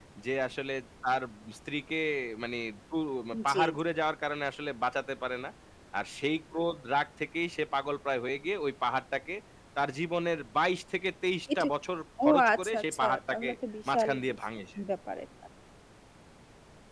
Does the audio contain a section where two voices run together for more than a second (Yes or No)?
Yes